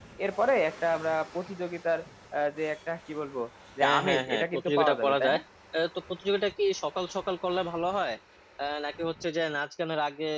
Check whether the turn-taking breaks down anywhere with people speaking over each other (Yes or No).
Yes